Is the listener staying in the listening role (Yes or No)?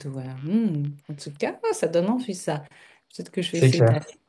Yes